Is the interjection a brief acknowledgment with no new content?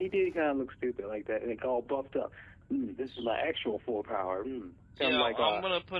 No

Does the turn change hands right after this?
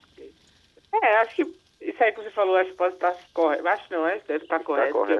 No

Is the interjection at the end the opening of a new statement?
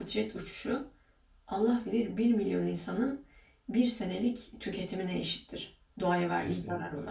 Yes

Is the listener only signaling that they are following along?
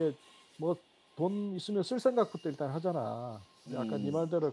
Yes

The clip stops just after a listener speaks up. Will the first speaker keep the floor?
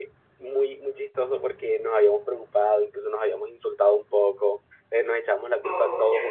Yes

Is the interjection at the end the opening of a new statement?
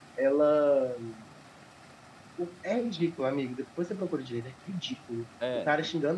No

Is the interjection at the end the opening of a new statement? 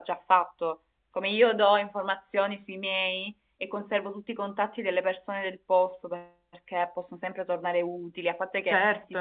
No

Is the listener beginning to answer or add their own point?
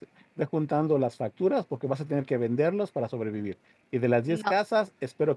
No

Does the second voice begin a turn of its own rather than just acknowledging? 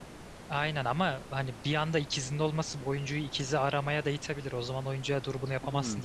Yes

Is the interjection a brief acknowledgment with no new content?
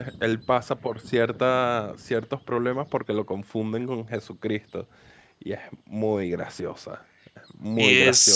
No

